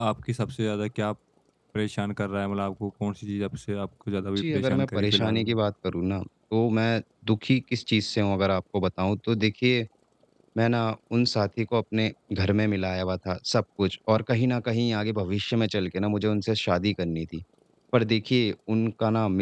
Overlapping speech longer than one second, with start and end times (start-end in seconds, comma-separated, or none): 4.4-5.6